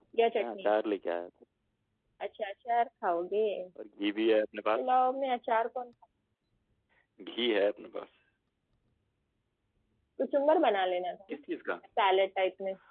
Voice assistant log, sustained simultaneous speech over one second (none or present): none